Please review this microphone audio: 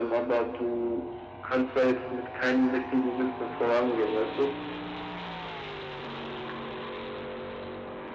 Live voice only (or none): none